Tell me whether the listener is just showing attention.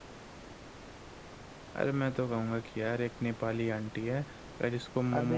No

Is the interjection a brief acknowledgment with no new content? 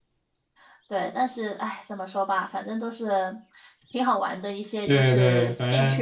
No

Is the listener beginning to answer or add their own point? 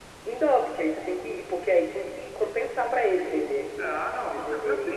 Yes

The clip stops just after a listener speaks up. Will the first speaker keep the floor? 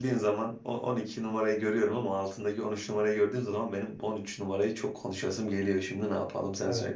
No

